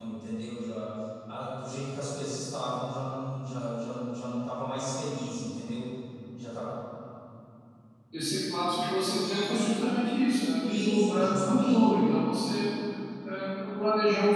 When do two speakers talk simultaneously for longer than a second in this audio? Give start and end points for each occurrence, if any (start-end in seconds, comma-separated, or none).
10.6-11.9